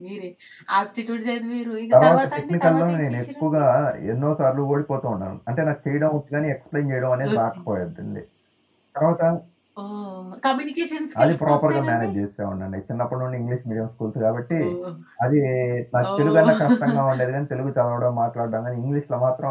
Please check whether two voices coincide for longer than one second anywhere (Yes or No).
Yes